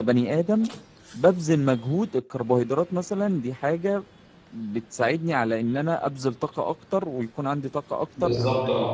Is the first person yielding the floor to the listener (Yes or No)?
No